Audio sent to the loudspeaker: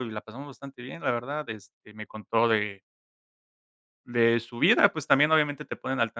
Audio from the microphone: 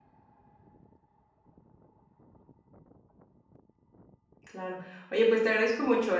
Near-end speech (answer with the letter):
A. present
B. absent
A